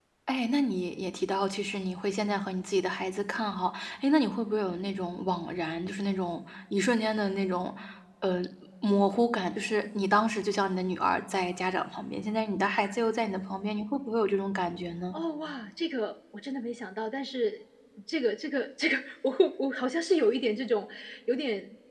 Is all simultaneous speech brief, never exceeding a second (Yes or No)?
Yes